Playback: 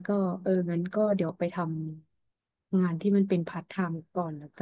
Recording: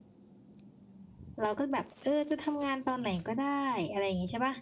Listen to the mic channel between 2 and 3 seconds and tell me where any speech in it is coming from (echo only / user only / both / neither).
user only